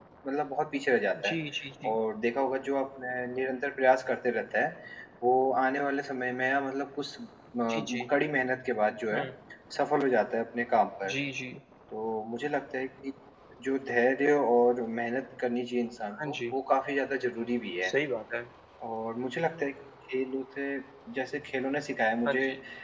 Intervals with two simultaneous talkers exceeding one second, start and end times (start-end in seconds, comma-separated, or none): none